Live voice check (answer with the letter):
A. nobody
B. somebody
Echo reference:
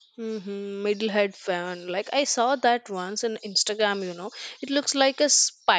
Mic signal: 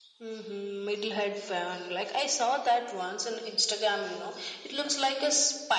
A